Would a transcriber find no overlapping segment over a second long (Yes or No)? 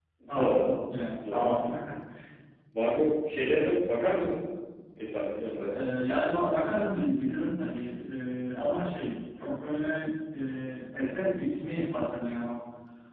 Yes